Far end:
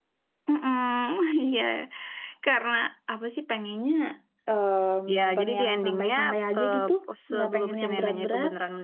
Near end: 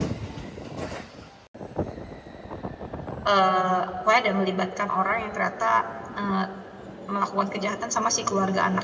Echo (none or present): none